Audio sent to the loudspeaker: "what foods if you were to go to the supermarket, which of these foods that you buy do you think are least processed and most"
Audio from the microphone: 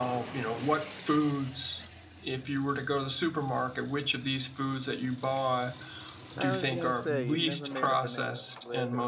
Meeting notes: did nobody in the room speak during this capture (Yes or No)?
No